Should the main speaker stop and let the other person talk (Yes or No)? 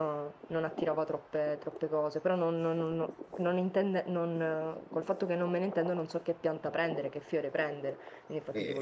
No